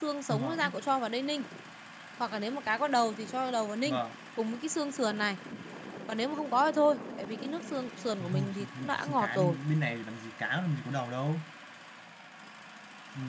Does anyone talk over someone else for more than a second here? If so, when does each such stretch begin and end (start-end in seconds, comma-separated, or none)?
8.2-9.6